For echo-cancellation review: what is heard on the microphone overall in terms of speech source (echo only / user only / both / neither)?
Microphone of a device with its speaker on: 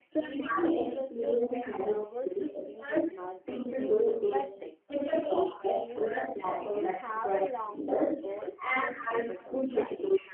both